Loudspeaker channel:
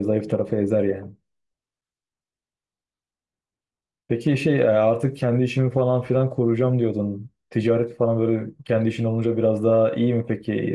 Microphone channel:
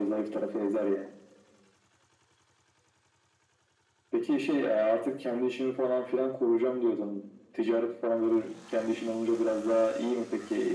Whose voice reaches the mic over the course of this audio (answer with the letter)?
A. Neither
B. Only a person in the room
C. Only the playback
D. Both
C